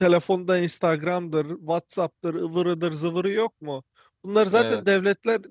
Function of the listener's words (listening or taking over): listening